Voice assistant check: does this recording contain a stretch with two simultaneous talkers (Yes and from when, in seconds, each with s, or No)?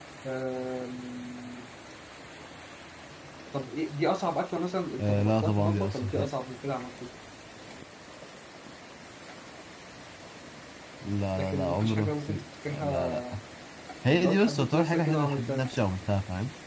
Yes, from 5.0 s